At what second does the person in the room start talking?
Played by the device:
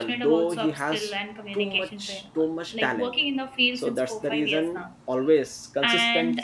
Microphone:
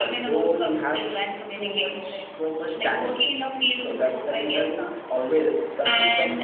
none

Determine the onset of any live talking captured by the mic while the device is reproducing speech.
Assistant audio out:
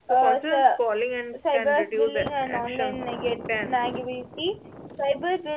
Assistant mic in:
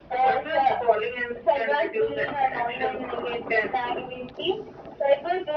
none

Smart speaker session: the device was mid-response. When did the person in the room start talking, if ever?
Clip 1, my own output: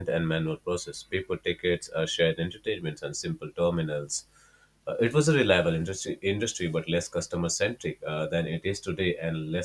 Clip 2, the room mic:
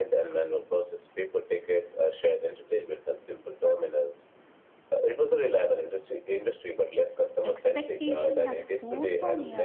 7.4 s

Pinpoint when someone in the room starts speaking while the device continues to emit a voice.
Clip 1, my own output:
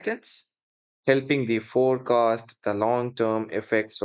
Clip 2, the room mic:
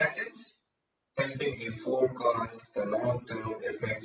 none

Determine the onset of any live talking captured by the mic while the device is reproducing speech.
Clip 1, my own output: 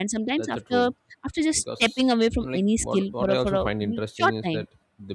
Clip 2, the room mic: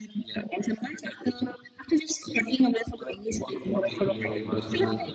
3.4 s

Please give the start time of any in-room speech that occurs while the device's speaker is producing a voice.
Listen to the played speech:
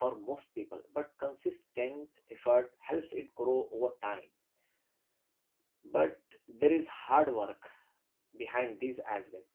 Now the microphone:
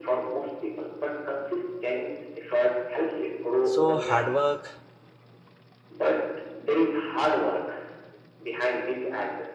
3.6 s

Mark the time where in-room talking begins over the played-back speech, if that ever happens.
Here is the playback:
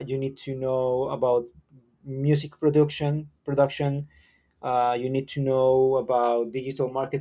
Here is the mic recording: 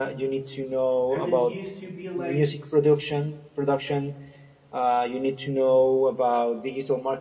1.1 s

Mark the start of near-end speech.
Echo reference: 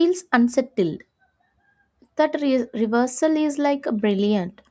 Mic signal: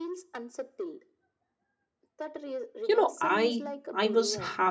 2.9 s

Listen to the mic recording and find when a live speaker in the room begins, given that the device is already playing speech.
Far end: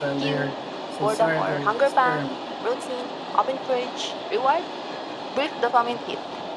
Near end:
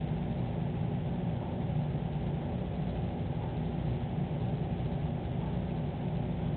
none

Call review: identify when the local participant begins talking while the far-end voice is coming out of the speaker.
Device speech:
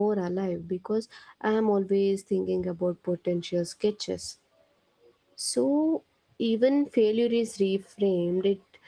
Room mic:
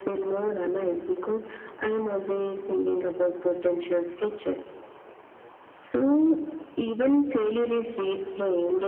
none

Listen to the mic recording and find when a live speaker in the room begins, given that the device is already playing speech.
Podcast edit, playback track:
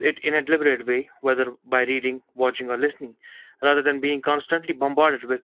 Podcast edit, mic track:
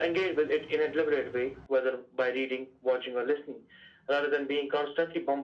none

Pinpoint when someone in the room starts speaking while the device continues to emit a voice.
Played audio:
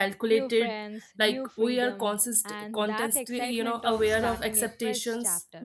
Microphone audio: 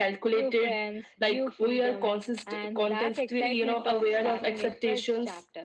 none

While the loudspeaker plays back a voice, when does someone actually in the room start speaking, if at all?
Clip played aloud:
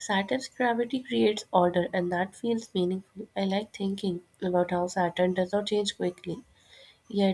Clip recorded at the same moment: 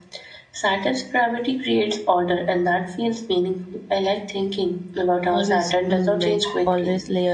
5.3 s

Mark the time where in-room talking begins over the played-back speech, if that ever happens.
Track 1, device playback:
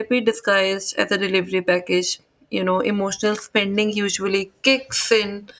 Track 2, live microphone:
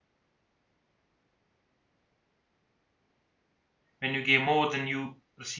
4.0 s

